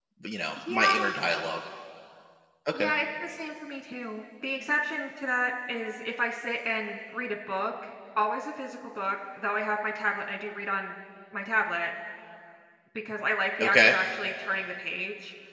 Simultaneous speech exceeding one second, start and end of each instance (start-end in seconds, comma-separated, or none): none